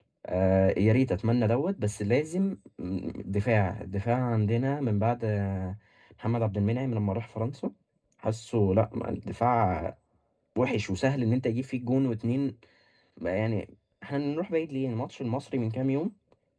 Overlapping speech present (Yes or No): No